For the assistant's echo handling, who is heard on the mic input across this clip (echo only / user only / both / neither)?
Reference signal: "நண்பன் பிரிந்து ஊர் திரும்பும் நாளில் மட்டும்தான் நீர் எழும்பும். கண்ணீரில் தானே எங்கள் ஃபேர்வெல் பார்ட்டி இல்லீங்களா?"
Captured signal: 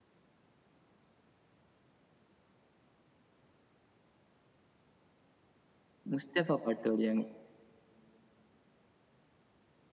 user only